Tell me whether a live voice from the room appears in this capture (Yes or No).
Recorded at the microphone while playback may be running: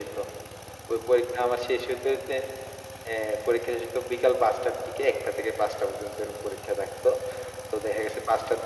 No